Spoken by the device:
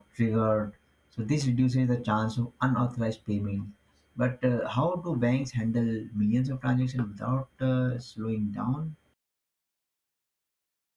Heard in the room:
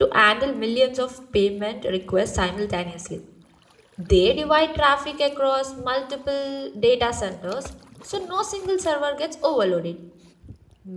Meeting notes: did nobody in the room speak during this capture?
No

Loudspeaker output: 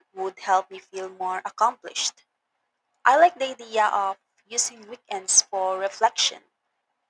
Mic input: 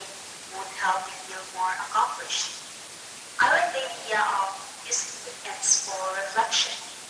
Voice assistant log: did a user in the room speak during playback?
No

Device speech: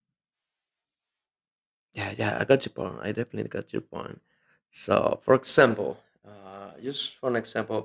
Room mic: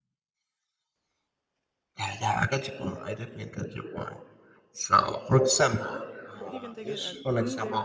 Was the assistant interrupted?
Yes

